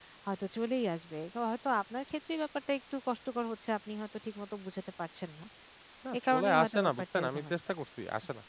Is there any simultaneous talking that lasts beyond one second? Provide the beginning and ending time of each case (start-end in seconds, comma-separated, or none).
6.2-7.5